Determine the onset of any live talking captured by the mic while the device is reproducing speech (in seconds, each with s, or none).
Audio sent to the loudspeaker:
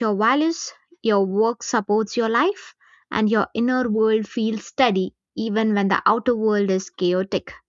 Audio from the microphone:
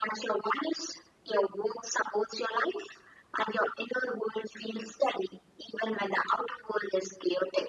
none